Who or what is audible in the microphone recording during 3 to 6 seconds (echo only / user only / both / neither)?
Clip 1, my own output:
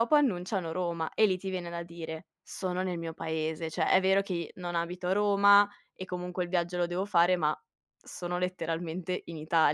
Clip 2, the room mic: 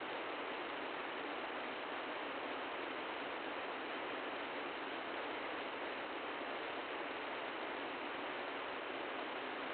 neither